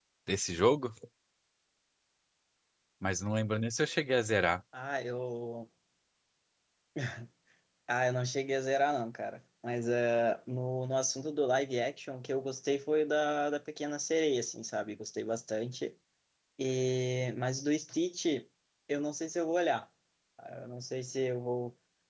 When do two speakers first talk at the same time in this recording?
none

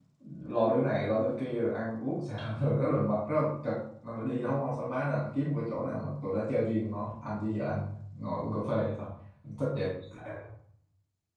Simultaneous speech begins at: none

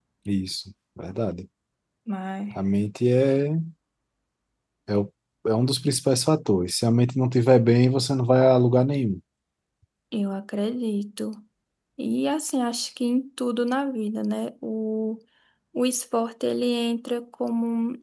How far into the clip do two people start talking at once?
none

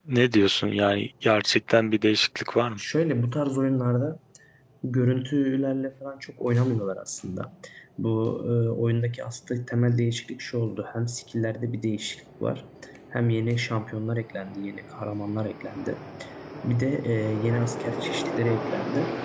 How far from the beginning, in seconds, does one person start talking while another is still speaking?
none

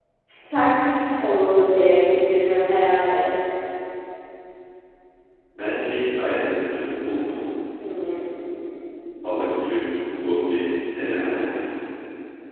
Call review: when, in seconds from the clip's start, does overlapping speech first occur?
none

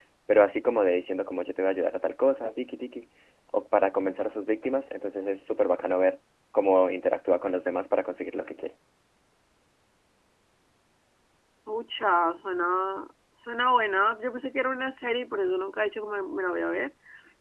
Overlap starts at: none

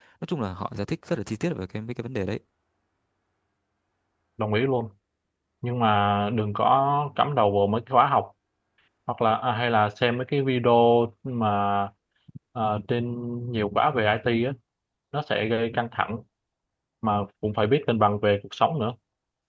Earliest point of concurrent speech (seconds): none

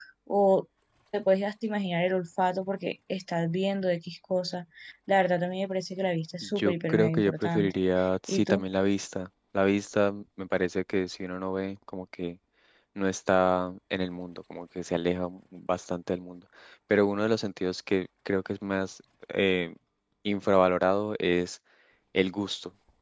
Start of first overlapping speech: 6.6 s

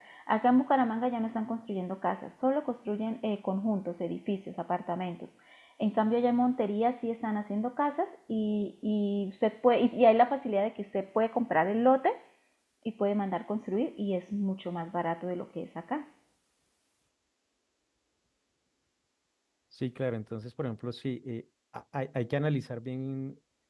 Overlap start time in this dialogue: none

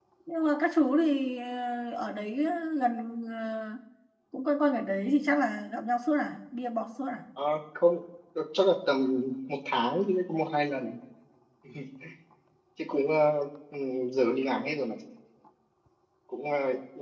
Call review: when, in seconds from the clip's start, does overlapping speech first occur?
none

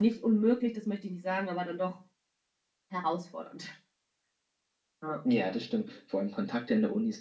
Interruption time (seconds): none

